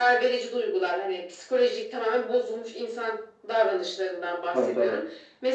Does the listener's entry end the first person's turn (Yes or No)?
No